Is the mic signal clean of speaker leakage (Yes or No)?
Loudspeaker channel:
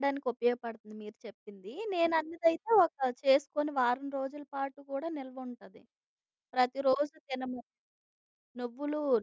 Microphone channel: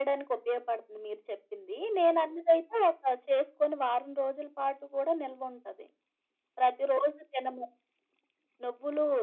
No